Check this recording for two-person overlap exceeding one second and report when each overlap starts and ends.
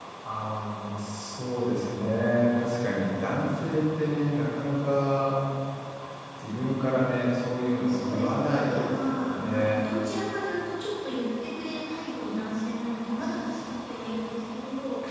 7.6-9.7

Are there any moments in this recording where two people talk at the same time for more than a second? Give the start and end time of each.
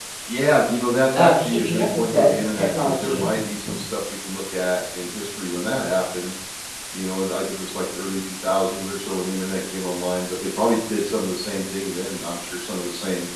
1.1-3.3

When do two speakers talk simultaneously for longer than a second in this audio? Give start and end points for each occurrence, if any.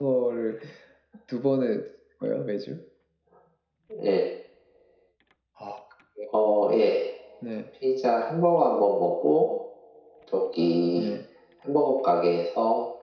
none

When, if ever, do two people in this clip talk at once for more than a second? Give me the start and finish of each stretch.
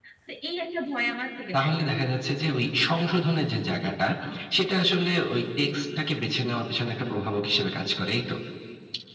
none

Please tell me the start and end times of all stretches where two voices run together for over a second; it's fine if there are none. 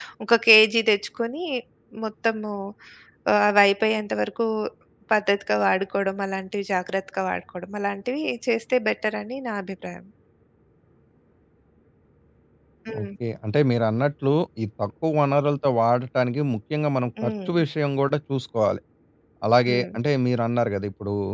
none

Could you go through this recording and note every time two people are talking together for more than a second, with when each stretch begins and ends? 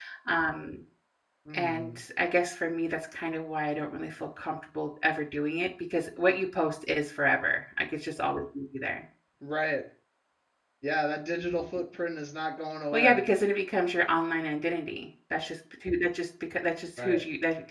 none

